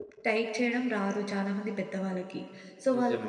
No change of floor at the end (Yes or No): Yes